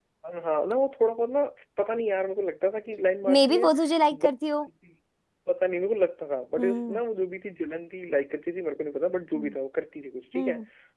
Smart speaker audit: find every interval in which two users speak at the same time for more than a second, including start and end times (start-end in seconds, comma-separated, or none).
none